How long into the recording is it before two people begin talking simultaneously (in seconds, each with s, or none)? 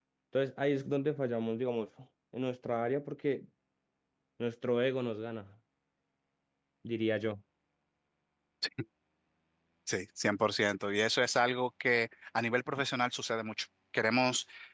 none